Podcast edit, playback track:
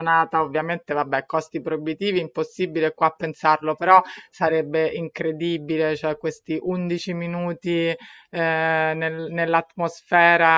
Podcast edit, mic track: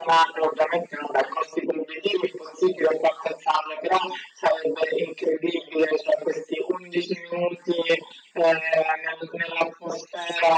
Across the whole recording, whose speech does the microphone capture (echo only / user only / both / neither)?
echo only